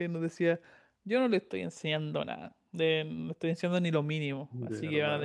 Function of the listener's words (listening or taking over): listening